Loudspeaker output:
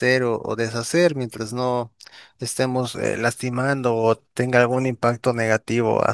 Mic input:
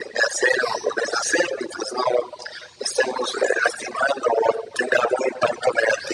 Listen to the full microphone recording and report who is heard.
echo only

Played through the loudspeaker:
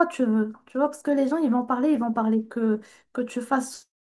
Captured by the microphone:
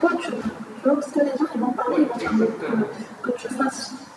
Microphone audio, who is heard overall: both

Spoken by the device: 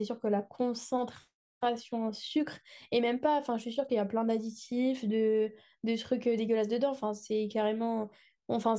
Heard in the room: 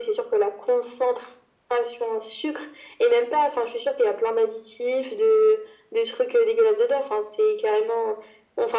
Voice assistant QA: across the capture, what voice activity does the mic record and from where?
echo only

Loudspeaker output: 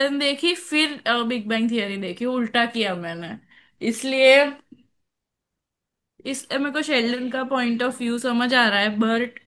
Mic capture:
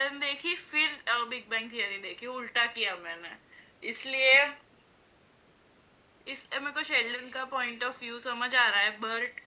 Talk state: echo only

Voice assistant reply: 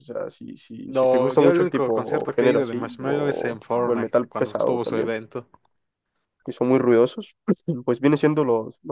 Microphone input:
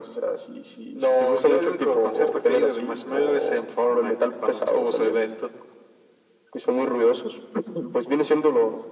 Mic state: echo only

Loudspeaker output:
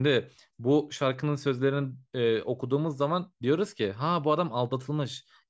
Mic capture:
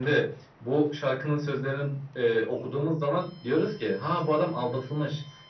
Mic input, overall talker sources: echo only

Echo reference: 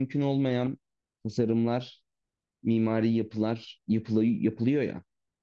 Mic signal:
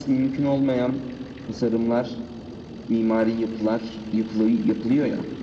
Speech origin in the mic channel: echo only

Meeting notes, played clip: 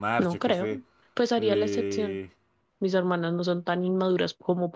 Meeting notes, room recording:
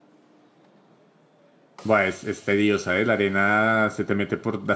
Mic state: user only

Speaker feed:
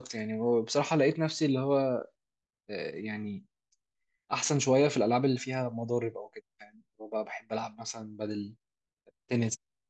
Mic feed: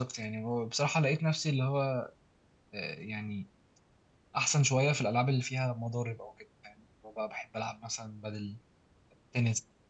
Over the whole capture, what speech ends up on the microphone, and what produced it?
echo only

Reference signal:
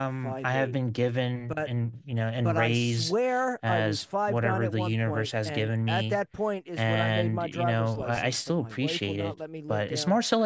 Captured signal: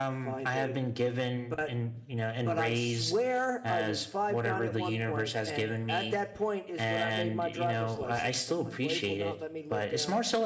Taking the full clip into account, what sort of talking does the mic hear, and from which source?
echo only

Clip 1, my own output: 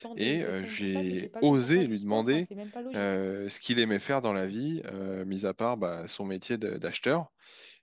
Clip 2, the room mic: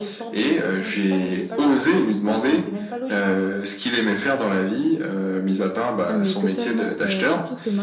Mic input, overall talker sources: both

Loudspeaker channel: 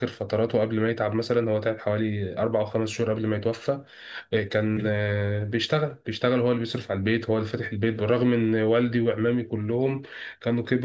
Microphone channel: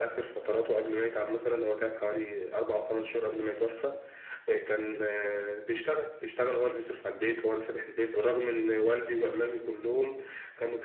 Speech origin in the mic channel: echo only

